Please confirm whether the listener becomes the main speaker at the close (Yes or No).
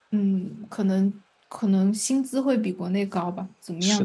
Yes